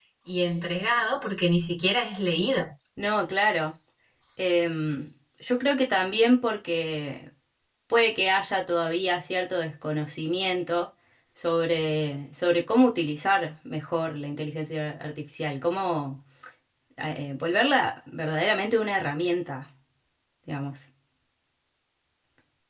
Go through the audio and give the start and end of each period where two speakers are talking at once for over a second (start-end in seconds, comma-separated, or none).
none